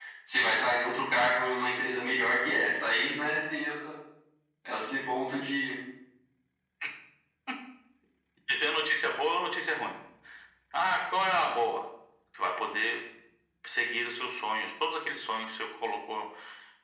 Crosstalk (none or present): none